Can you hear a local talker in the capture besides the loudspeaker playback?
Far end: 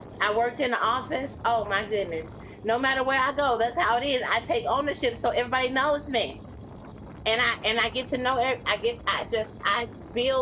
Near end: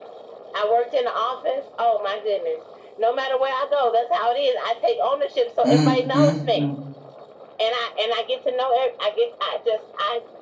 Yes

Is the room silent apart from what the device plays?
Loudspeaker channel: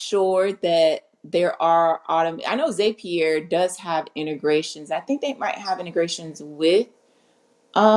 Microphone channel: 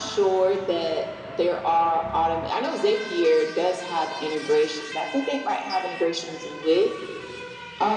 Yes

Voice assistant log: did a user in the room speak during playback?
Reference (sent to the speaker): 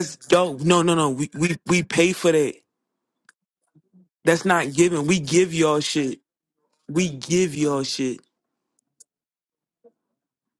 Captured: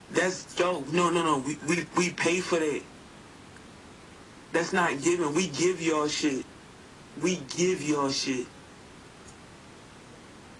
No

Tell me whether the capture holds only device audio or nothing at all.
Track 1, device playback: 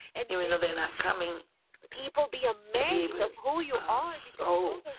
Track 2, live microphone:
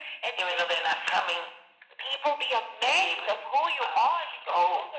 Yes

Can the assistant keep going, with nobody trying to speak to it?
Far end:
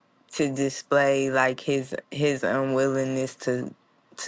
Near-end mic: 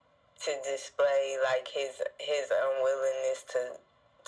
Yes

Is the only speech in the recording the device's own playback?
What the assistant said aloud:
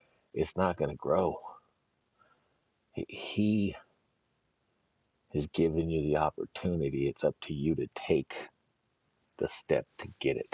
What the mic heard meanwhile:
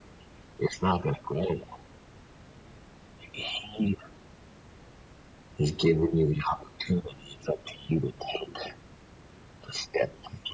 Yes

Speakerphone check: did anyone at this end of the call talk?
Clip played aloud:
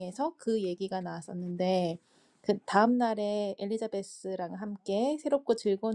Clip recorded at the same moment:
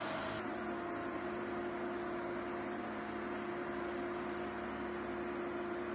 No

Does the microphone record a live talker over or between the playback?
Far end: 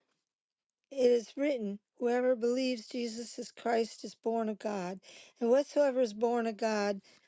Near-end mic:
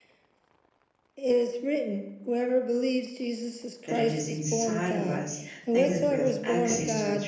Yes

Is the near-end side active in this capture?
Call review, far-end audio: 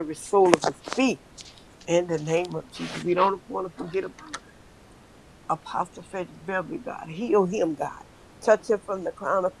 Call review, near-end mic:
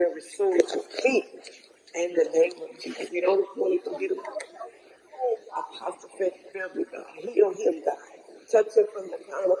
Yes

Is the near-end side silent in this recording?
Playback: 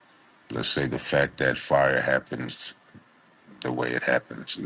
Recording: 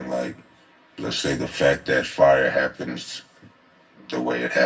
Yes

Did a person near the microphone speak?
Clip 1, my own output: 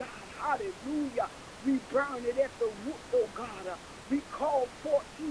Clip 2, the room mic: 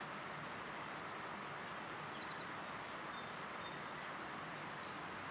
No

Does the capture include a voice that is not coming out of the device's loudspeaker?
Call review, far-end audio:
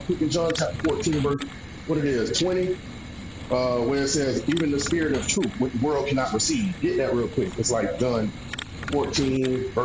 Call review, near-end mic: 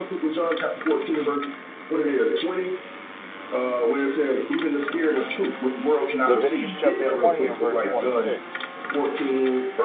Yes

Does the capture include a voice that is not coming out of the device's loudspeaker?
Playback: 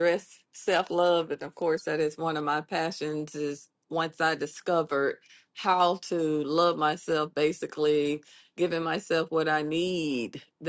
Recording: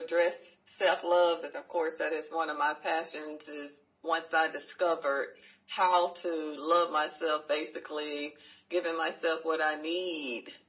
No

